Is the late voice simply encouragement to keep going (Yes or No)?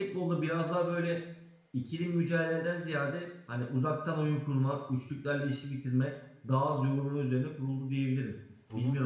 No